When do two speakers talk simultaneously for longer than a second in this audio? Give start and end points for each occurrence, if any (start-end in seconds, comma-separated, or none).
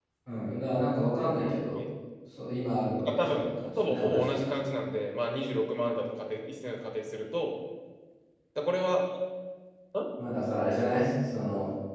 3.0-4.5